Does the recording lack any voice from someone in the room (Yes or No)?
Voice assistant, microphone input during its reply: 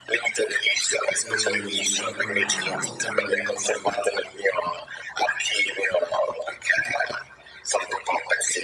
No